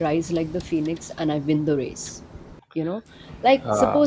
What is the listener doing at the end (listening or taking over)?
listening